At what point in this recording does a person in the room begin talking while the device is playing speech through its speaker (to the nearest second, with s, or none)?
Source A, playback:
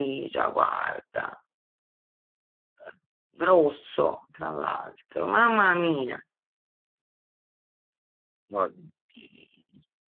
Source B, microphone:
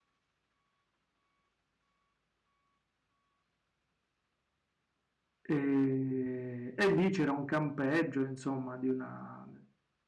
5 s